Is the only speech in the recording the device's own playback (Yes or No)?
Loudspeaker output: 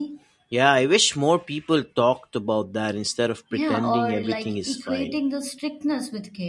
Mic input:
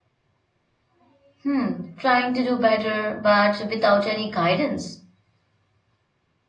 No